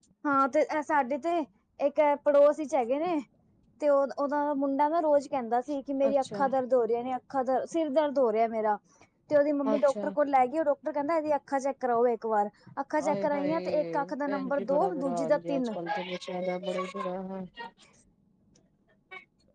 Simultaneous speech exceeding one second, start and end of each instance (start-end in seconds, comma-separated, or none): 13.0-15.6